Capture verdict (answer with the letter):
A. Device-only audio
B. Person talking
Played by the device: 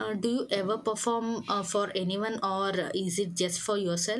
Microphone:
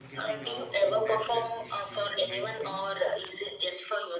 B